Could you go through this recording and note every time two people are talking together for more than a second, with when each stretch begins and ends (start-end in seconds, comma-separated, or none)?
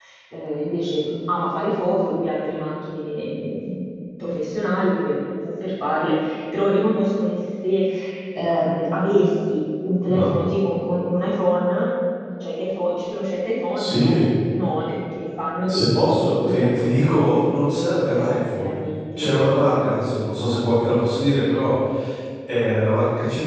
15.6-17.8